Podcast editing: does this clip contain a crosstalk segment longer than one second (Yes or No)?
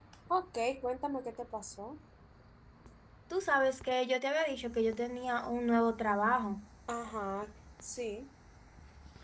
No